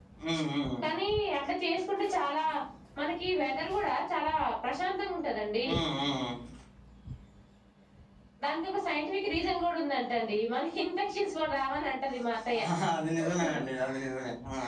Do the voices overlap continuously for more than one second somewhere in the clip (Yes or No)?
No